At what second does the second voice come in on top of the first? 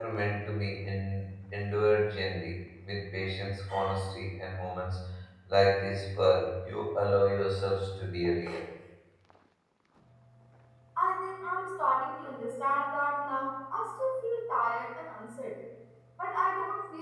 none

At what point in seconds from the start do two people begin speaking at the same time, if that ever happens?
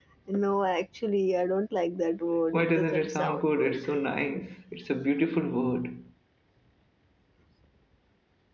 2.5 s

